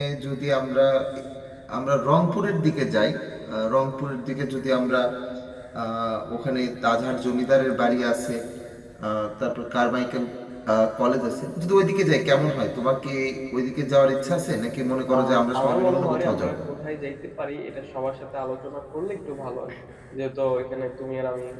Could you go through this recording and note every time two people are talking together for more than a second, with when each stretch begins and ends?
15.1-16.6

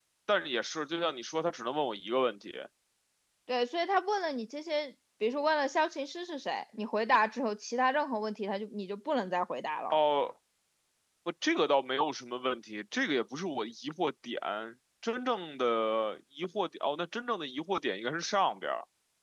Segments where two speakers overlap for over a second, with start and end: none

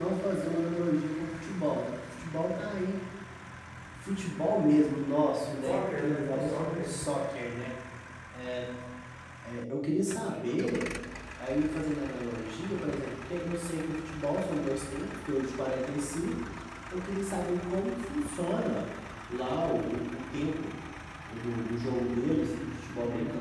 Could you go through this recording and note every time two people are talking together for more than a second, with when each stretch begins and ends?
5.6-6.9

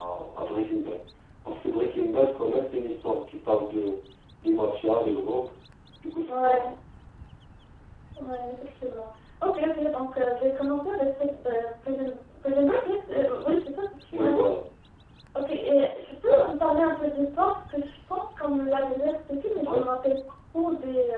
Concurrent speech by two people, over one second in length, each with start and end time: none

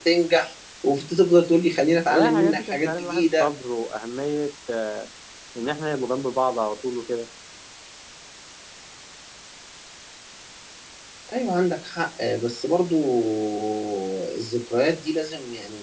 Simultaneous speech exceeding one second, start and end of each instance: 2.1-3.5

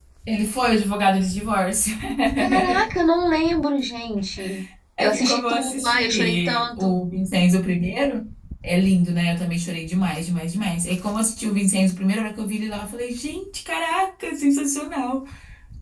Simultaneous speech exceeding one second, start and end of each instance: 5.0-6.9

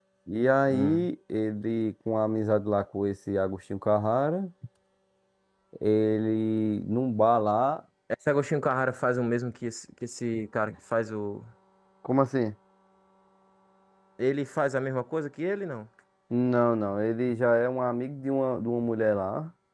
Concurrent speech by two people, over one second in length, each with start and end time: none

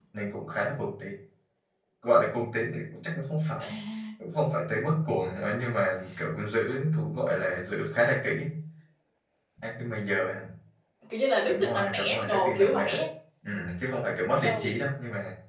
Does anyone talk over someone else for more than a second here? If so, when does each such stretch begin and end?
11.5-13.0

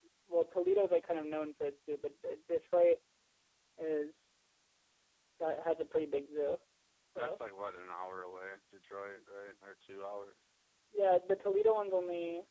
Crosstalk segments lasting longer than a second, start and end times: none

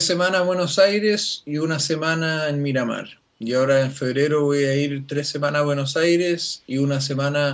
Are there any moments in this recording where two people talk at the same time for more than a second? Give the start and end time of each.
none

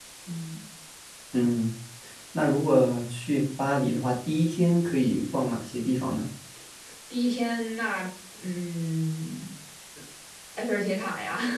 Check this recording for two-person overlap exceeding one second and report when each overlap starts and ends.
none

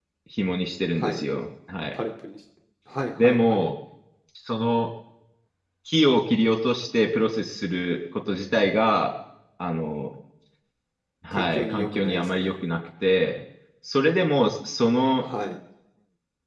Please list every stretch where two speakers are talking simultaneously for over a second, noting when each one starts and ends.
11.3-12.5

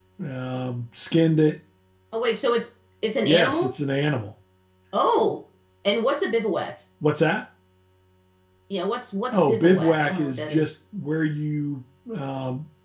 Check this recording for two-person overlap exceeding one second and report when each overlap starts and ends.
9.3-10.7

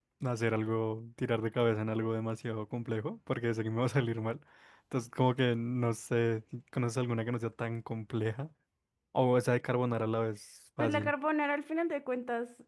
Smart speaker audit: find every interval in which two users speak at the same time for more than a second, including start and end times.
none

